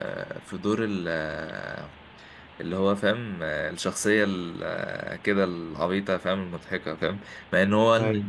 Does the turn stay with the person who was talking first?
Yes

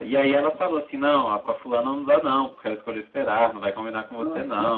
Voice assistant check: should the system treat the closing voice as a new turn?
No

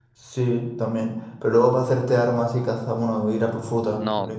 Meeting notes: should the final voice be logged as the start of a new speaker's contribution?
Yes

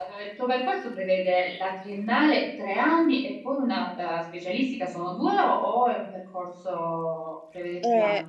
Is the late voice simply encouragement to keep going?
No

